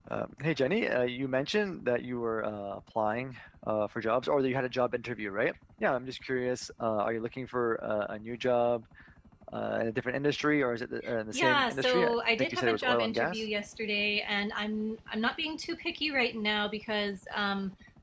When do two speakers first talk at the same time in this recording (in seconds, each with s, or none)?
11.3 s